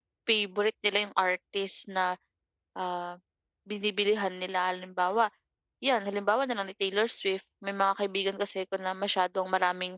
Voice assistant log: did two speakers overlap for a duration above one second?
No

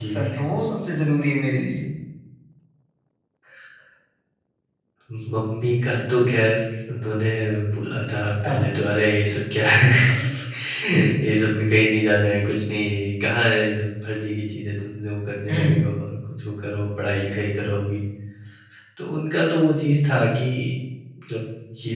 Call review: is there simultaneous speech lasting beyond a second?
No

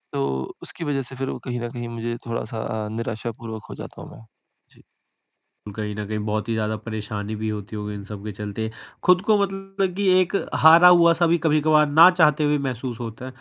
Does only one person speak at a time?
Yes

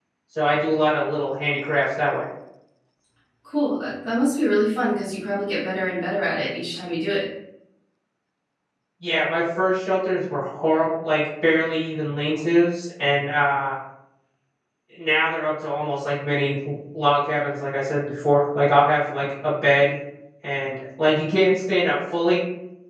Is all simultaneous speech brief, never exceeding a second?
Yes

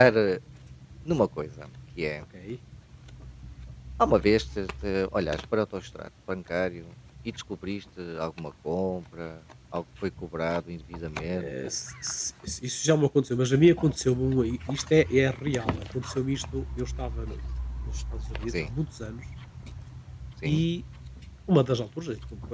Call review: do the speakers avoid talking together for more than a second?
Yes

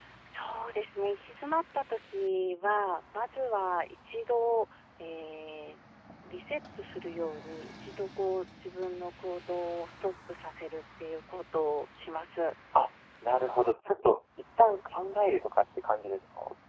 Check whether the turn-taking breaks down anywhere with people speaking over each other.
No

